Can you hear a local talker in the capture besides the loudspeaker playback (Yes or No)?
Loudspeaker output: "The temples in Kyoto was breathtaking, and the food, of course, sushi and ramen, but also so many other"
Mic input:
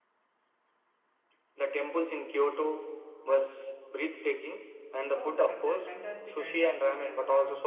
Yes